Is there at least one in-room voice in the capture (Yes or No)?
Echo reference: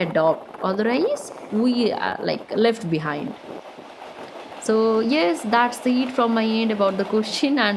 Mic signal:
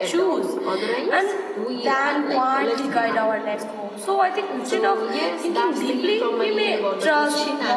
Yes